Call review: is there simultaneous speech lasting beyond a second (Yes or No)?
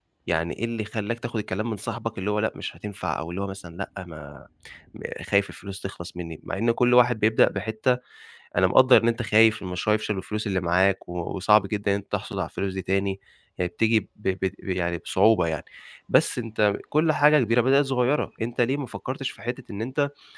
No